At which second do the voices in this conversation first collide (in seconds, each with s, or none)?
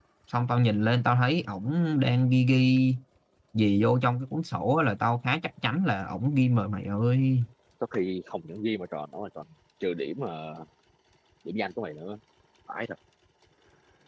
none